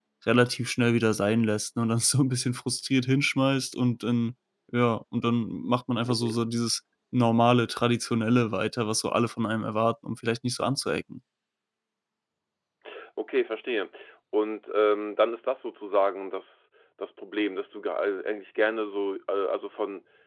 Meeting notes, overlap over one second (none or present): none